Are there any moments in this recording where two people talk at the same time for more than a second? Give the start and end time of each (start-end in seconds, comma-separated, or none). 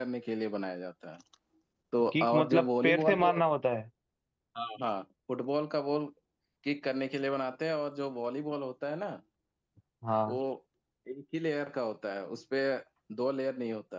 2.1-3.3